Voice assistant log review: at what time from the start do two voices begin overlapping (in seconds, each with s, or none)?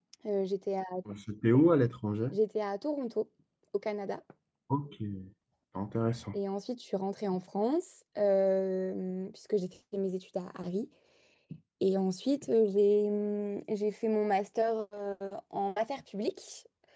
none